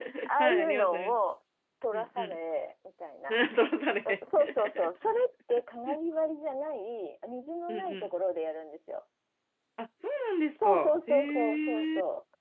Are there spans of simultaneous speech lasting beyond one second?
Yes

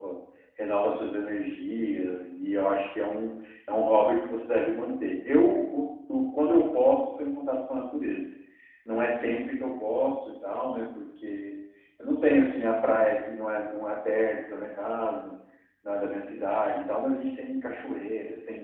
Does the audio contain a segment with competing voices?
No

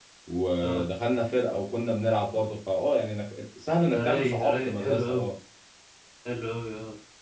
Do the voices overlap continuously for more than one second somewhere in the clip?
Yes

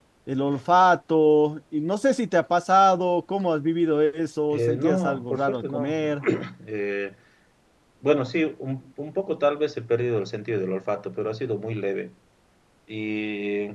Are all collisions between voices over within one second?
No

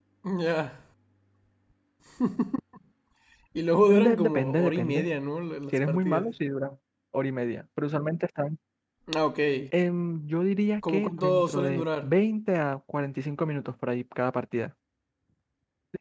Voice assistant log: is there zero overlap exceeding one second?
No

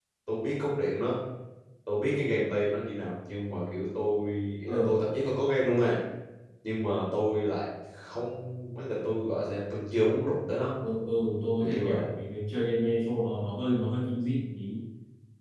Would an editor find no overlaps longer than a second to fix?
Yes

